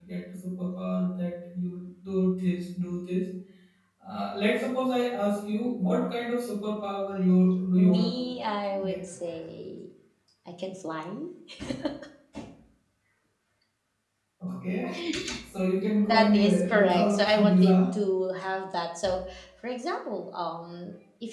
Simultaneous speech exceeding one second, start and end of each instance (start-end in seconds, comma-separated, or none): 16.0-17.8